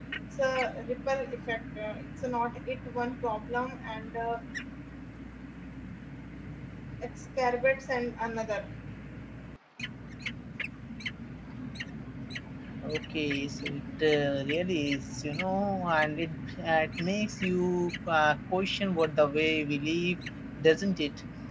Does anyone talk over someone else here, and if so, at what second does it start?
none

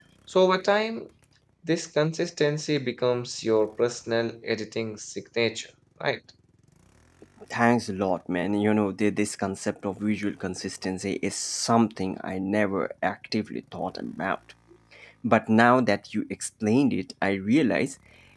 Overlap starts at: none

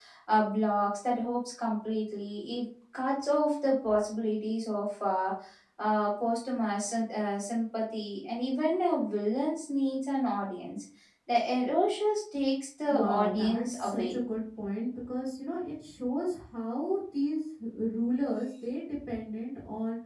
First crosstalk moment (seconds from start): 12.9 s

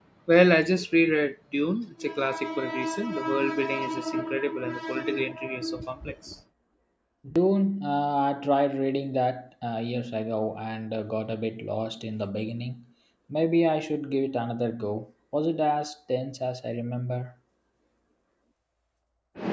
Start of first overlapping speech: none

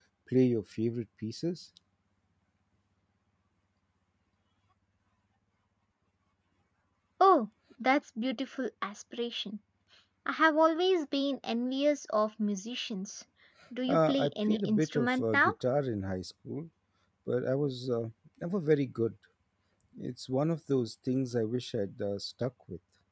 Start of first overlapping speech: 13.9 s

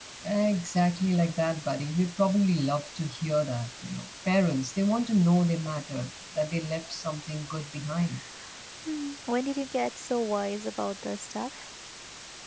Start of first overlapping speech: none

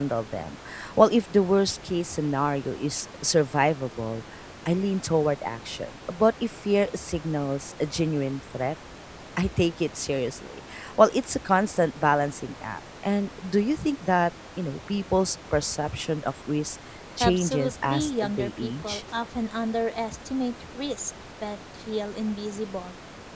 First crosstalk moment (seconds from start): 17.2 s

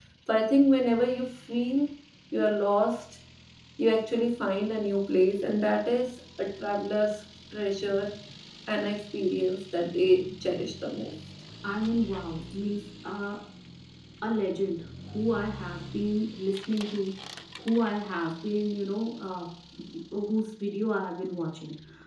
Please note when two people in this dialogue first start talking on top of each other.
none

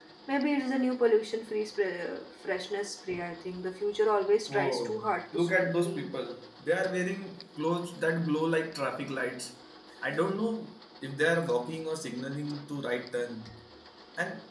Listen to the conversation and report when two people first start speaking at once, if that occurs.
4.5 s

